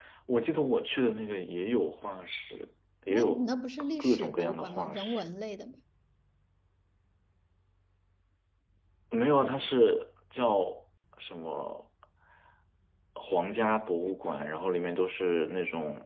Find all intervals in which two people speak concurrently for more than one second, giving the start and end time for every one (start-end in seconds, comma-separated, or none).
4.0-5.2